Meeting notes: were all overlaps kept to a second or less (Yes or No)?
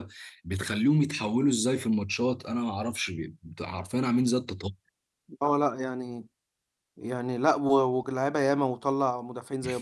Yes